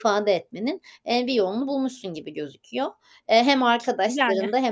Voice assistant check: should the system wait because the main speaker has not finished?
Yes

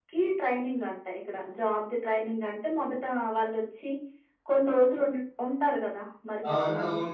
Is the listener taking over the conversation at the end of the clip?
Yes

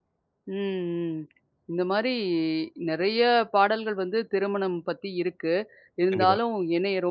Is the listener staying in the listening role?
Yes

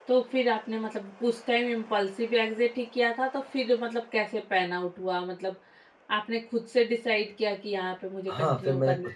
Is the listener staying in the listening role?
No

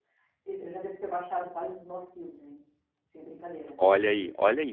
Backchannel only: No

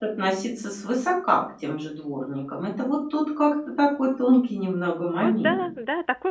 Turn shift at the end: Yes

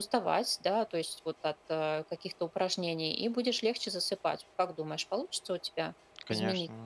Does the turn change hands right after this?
Yes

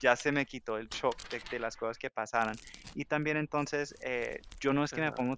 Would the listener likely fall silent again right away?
Yes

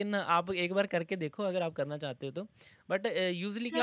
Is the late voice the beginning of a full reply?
Yes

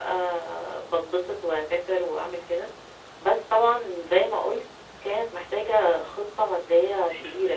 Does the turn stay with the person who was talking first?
No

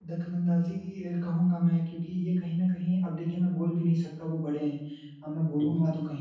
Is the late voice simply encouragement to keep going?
Yes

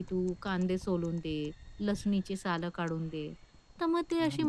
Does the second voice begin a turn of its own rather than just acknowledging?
No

